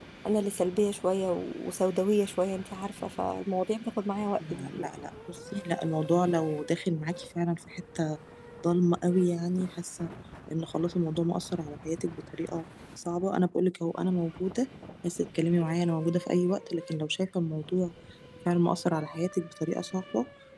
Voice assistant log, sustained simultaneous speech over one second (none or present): none